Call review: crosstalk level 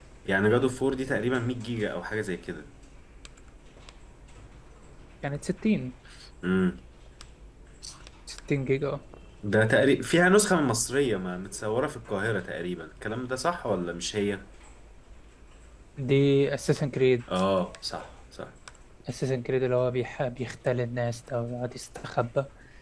none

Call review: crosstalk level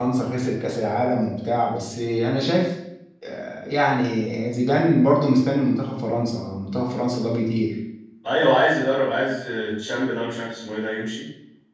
none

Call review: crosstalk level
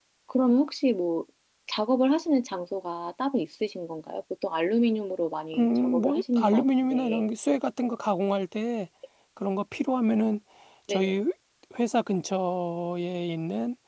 present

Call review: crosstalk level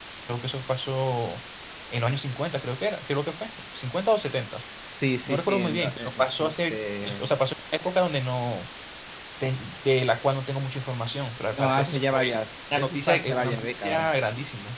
present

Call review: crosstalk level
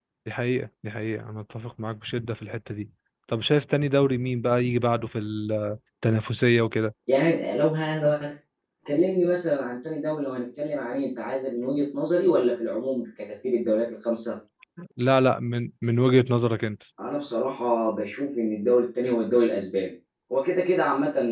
none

